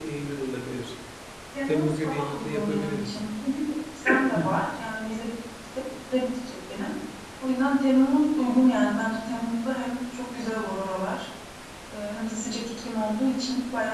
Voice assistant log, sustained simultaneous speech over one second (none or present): present